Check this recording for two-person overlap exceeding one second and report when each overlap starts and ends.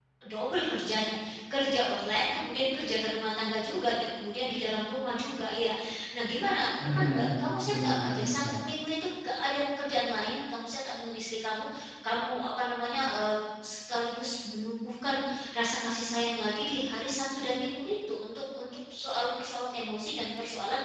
6.8-8.5

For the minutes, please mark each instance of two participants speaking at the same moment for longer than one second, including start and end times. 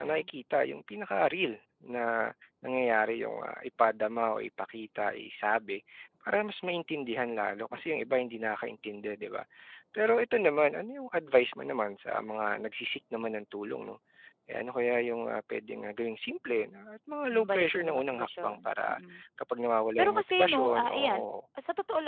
17.3-19.0, 20.0-21.2

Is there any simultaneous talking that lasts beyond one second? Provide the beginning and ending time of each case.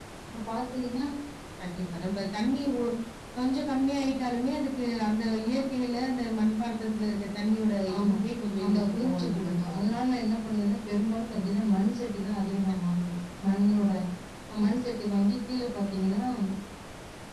8.6-9.9

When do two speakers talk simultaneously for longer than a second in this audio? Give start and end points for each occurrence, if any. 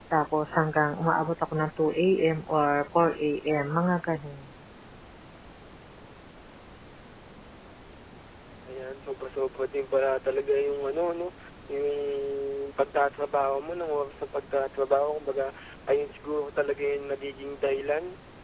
none

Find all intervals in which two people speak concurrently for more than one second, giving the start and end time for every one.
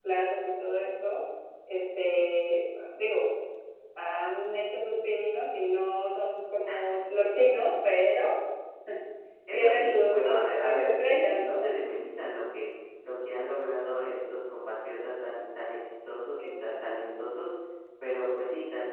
9.5-11.6

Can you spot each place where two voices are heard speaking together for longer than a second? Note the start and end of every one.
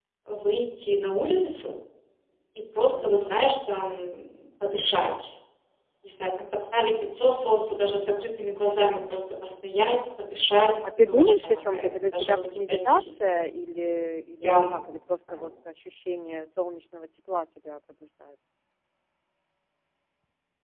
11.1-13.4

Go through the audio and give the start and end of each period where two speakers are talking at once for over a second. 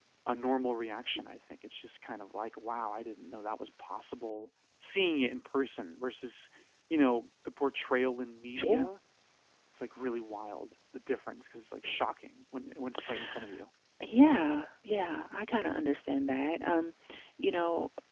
none

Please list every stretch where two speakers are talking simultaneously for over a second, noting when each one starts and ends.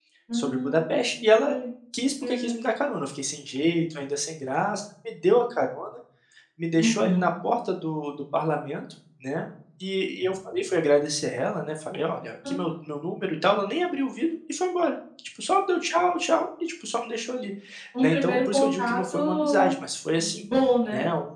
18.0-19.7

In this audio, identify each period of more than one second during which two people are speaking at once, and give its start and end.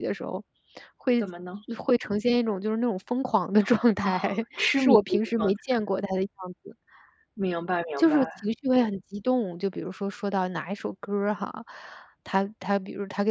4.6-5.8

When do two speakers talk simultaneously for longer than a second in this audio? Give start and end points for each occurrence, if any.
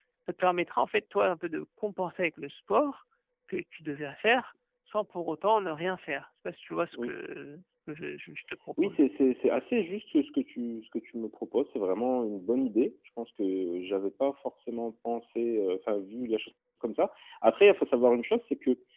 none

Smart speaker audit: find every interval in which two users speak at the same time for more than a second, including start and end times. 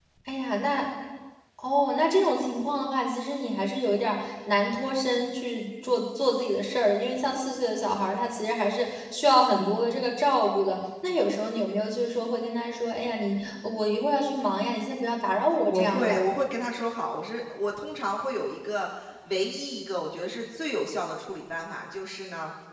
none

